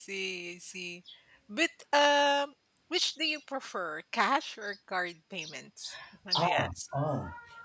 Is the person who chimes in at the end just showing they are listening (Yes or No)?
No